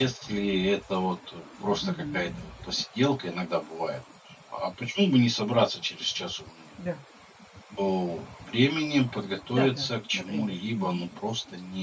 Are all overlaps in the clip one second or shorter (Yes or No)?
No